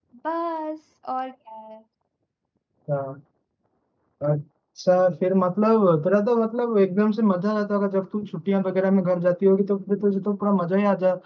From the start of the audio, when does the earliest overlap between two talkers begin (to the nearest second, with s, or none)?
none